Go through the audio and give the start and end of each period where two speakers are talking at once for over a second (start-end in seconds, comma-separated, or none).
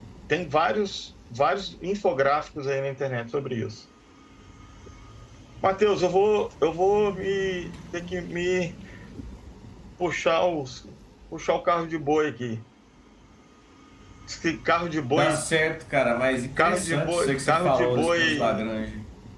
16.6-18.6